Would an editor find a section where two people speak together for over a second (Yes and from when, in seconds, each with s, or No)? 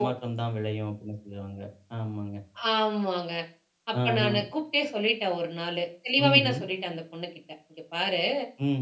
No